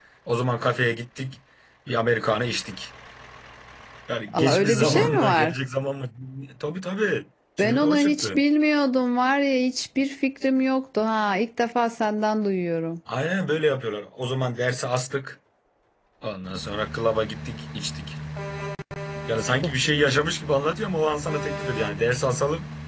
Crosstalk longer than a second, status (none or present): present